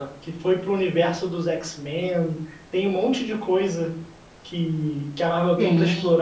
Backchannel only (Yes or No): Yes